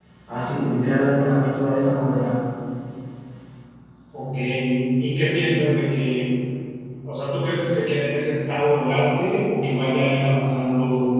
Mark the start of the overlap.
none

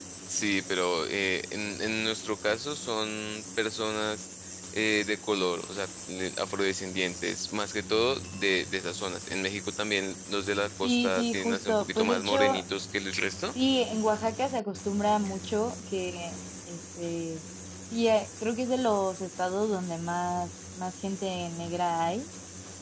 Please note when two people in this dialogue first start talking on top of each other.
10.8 s

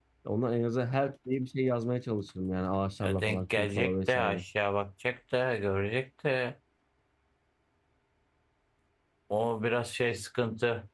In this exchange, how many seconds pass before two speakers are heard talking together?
3.0 s

